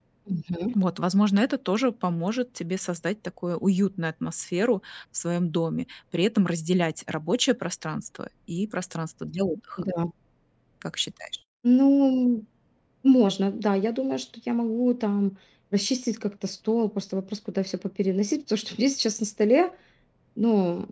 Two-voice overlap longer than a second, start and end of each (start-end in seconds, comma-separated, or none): none